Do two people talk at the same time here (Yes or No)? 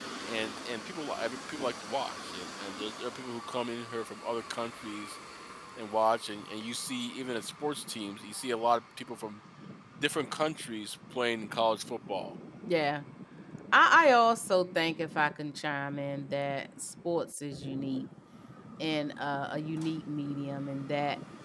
No